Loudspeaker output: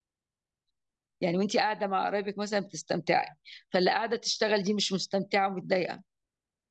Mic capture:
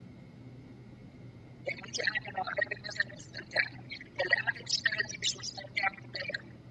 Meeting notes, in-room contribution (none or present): none